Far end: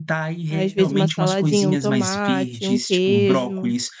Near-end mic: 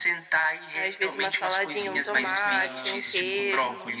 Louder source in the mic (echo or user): echo